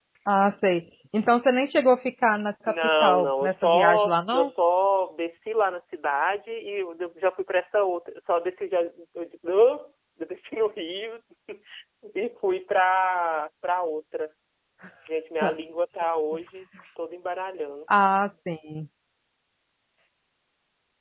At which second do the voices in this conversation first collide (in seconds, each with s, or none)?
2.6 s